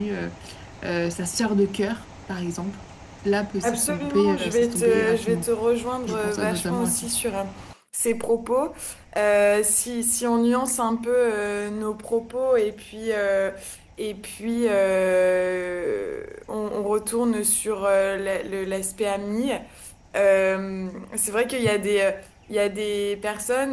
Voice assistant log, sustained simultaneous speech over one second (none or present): present